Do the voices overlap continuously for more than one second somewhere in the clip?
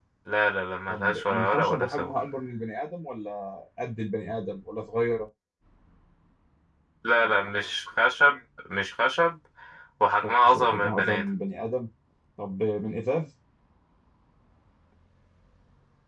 Yes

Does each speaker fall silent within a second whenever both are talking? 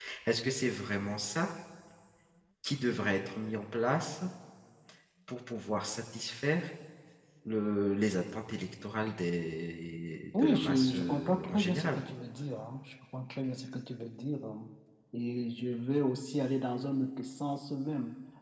No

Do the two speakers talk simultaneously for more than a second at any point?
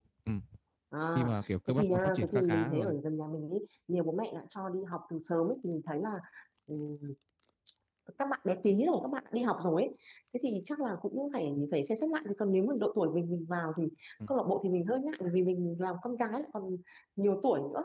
Yes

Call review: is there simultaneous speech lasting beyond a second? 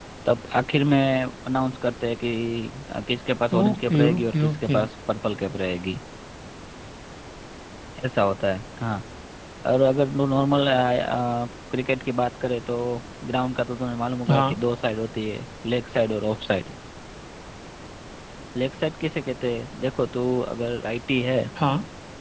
Yes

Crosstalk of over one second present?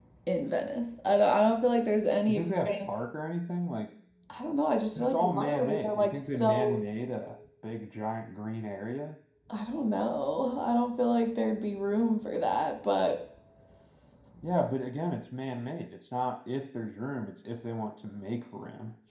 Yes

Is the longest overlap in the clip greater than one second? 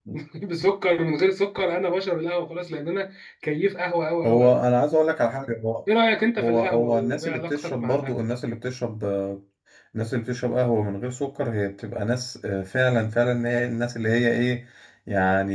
Yes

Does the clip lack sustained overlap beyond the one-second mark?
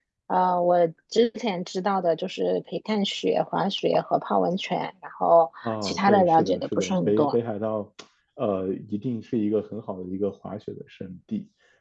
No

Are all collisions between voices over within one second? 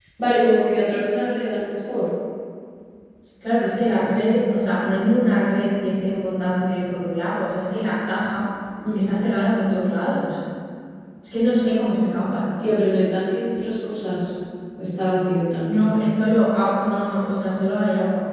Yes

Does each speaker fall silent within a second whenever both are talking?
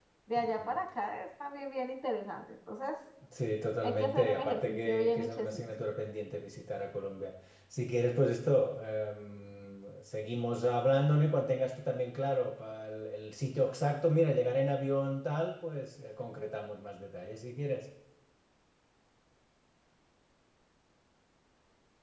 No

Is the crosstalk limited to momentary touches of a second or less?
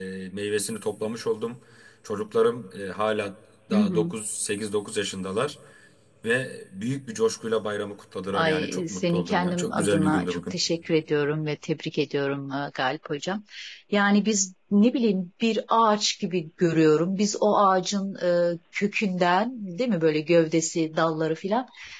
No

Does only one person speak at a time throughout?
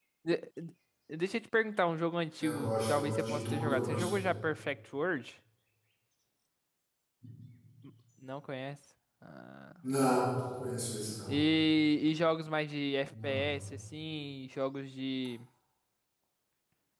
No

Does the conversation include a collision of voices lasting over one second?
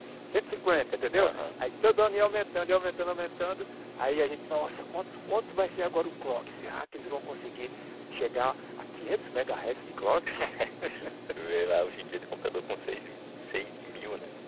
No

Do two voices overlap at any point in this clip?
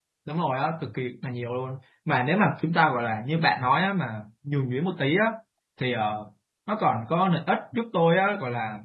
No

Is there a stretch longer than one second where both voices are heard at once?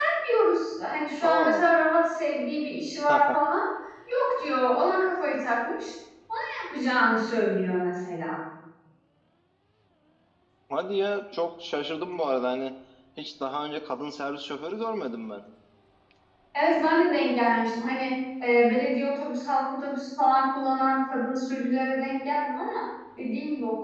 No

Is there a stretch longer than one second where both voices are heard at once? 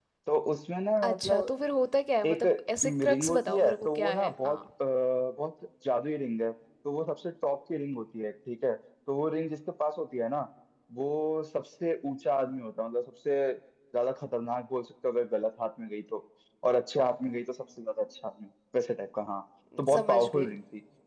Yes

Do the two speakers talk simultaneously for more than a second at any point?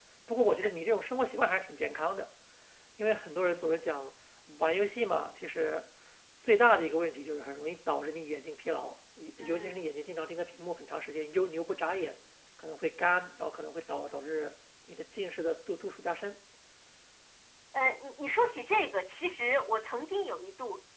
No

